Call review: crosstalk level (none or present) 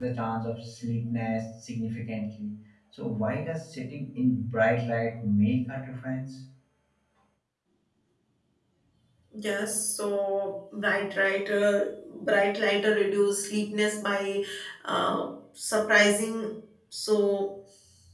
none